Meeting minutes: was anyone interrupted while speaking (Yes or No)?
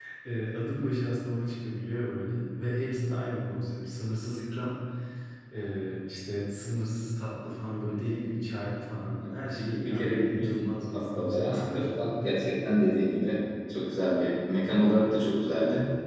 Yes